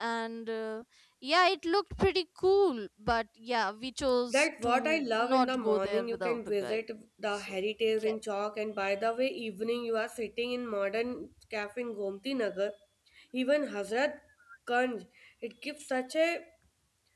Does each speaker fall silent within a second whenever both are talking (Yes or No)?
No